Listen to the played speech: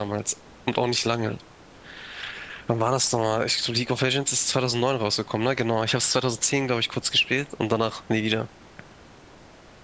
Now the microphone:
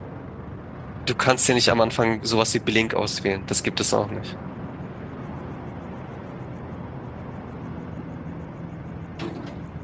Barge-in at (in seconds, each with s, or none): 1.0 s